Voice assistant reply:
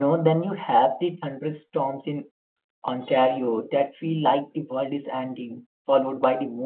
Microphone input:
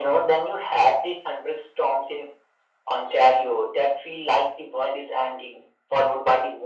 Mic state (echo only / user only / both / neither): echo only